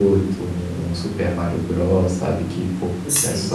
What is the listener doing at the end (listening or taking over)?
taking over